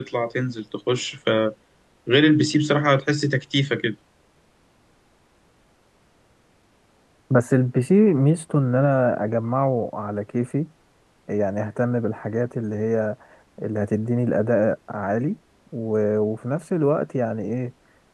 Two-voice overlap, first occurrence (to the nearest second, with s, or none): none